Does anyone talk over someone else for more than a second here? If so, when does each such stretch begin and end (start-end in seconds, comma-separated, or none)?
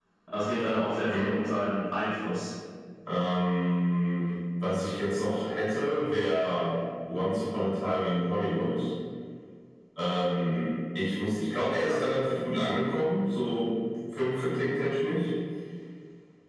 none